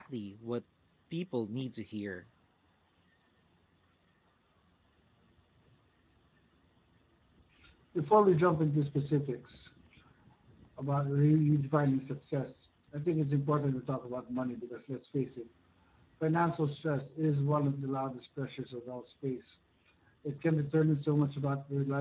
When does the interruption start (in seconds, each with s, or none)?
none